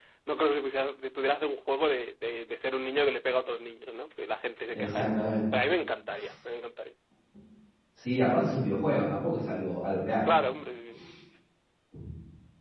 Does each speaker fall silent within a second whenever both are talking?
Yes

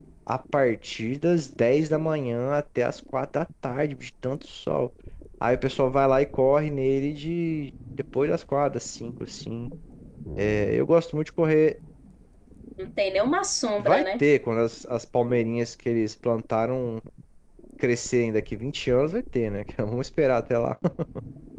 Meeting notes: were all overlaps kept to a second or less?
Yes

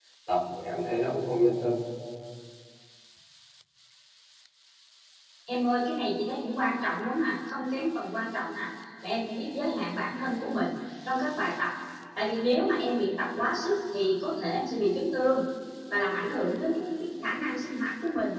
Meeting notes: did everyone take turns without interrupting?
Yes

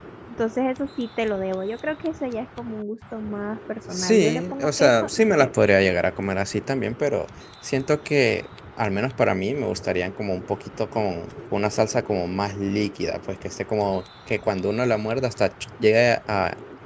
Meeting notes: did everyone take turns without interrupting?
No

